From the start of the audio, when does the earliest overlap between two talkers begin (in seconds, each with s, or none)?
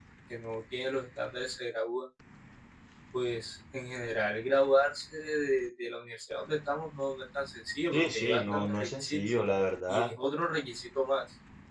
7.9 s